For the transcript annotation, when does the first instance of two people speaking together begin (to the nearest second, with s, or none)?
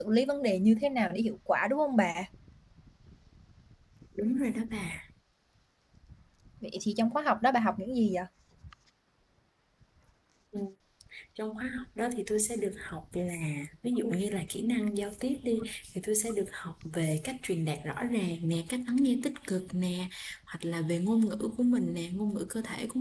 none